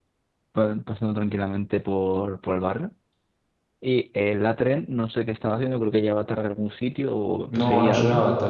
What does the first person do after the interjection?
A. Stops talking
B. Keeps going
A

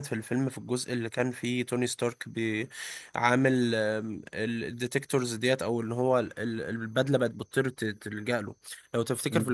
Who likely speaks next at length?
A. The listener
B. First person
B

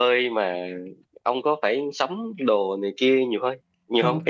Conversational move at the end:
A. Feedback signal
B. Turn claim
B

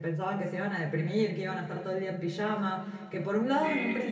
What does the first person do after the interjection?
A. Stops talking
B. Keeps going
B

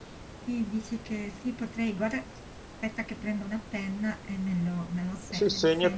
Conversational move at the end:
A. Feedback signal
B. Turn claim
B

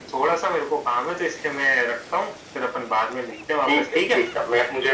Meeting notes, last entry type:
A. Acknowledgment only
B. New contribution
B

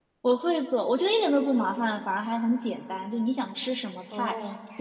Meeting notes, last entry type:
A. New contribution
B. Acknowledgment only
B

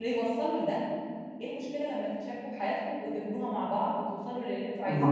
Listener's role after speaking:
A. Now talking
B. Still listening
A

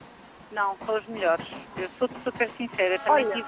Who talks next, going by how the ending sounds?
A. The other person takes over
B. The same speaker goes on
B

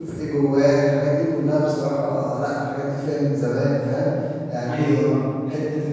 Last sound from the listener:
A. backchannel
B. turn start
A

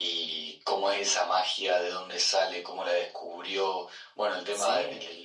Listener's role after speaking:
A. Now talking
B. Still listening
B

